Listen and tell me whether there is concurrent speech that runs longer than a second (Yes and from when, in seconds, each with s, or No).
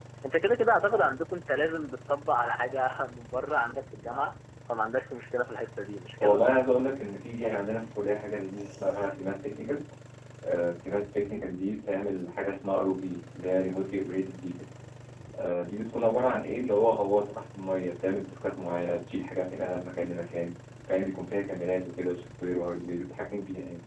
No